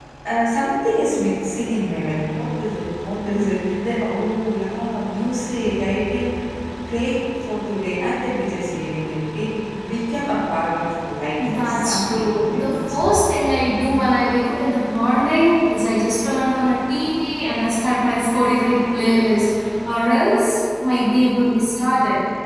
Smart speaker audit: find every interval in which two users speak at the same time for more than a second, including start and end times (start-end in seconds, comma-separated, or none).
11.5-13.1